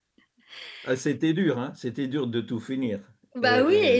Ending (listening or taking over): taking over